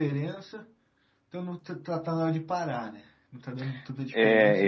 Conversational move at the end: taking over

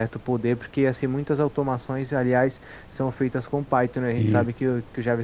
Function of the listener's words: listening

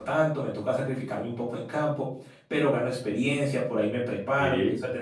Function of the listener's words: listening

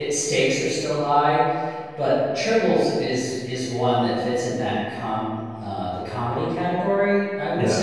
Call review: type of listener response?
listening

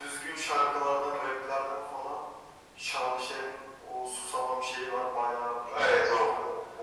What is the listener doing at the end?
taking over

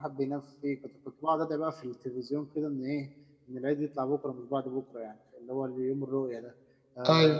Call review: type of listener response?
listening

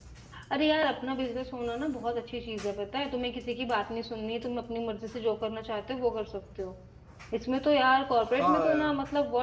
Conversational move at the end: listening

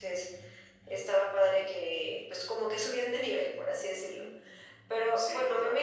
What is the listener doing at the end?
listening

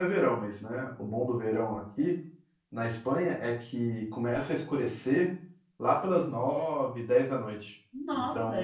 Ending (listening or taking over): taking over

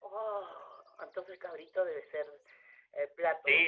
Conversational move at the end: taking over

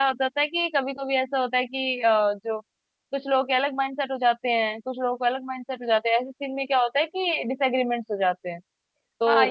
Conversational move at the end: taking over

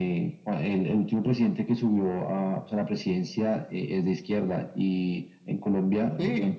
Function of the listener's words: listening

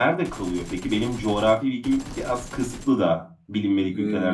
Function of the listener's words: taking over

